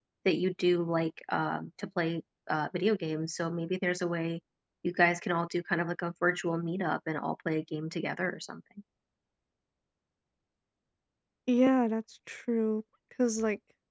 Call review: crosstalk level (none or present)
none